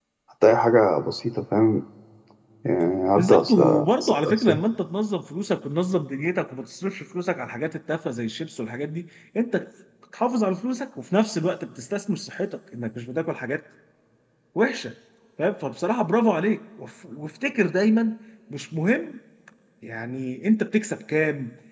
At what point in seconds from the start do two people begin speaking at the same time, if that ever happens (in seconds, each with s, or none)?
3.2 s